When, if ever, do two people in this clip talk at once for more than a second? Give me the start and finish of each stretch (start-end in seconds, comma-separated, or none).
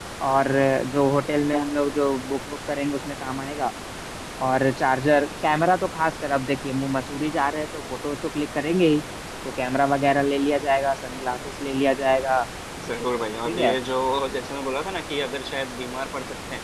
none